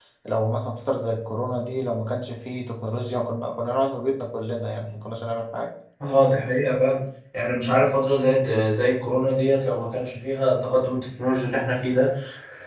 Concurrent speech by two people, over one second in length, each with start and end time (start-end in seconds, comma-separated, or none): none